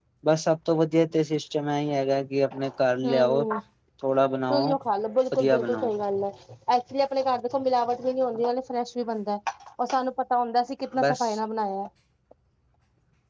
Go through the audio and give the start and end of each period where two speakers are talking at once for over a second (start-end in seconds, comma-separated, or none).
none